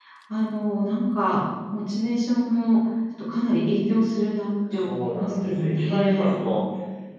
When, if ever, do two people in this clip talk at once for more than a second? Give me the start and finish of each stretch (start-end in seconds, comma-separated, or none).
4.8-6.3